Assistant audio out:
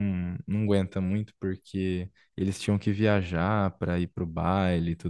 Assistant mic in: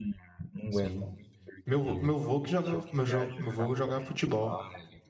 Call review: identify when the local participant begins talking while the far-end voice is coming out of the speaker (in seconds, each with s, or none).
0.7 s